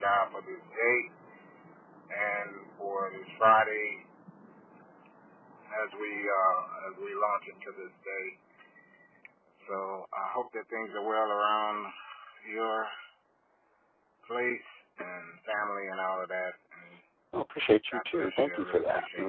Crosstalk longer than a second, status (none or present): present